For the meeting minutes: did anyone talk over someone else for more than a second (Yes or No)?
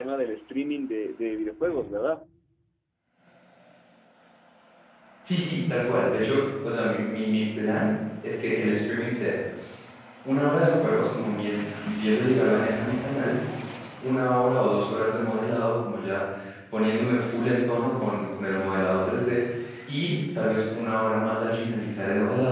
No